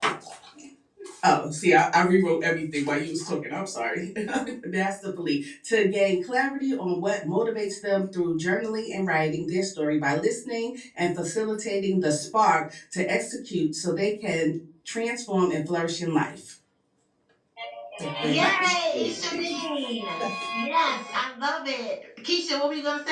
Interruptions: present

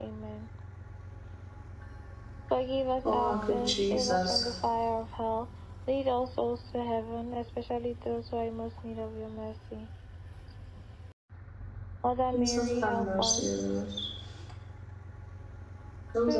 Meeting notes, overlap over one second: present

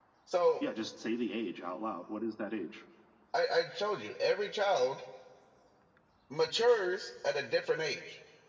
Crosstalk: none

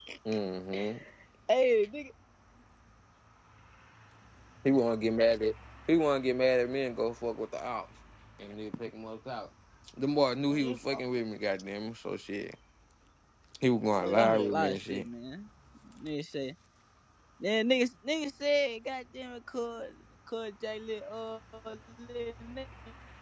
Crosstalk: present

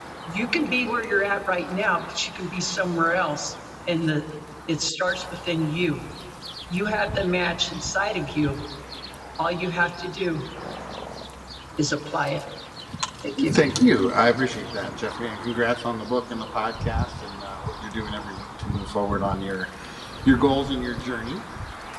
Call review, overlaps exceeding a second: none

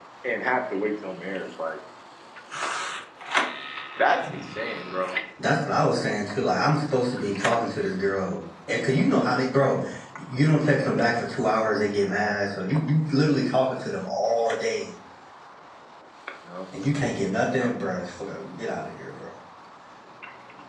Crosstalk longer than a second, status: none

